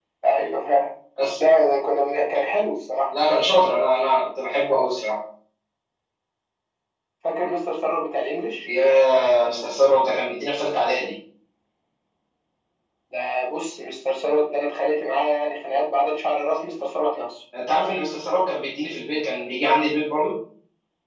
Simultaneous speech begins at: none

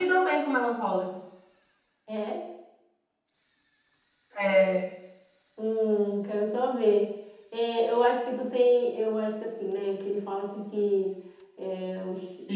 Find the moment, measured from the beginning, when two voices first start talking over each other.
none

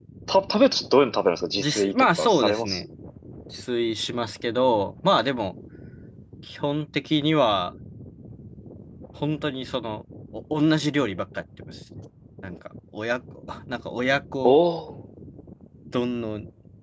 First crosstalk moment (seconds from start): 1.6 s

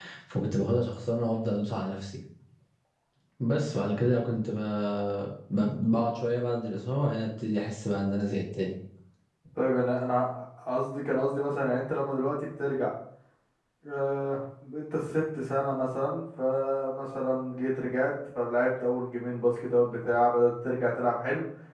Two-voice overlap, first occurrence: none

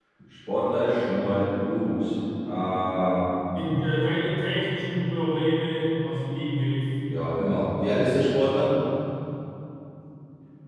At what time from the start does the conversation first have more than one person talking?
none

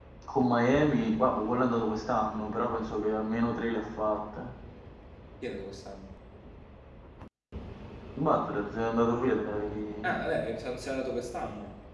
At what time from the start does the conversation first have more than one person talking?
none

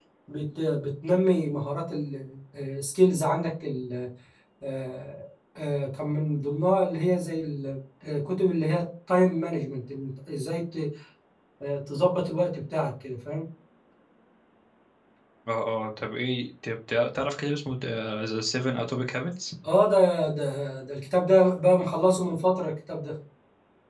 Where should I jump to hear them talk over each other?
none

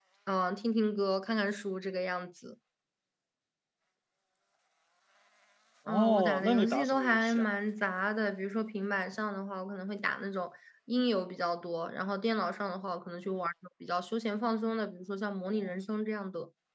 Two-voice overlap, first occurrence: 5.9 s

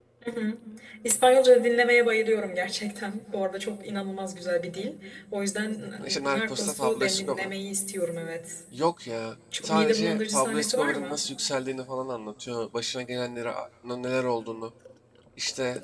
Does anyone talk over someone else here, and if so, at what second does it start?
6.0 s

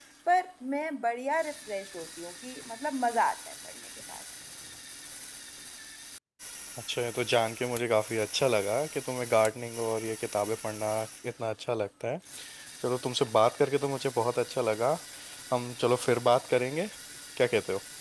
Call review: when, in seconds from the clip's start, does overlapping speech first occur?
none

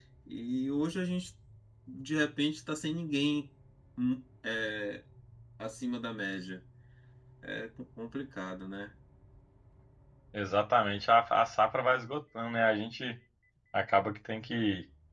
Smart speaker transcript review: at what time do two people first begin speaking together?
none

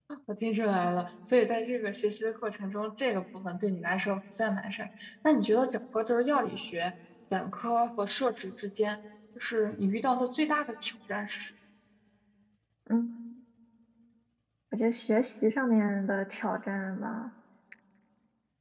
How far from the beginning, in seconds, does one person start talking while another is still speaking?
none

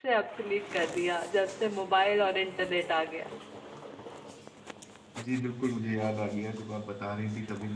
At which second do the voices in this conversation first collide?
none

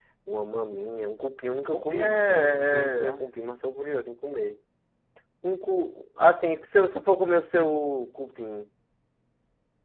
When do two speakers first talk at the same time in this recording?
1.7 s

